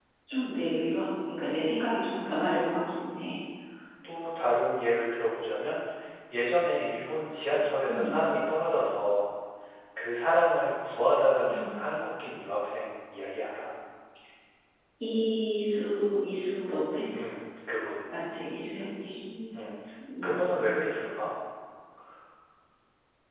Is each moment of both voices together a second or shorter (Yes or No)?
Yes